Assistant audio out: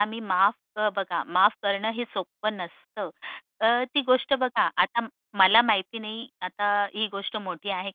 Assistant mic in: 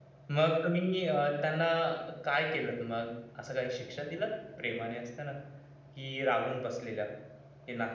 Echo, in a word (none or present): none